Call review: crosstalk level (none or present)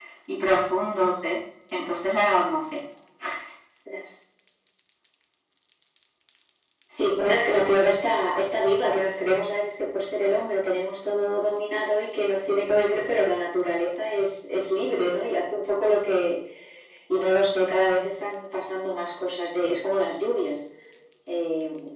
none